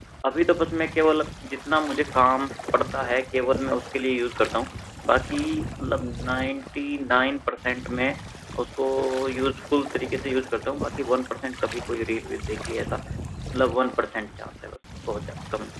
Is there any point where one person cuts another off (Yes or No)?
No